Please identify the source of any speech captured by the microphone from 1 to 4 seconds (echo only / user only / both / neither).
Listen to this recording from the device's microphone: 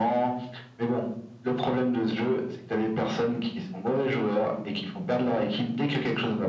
echo only